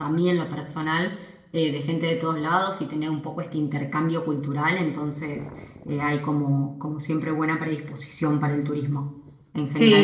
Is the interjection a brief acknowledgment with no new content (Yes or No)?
No